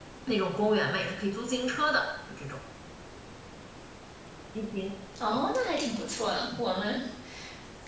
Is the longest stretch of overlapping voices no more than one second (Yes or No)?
Yes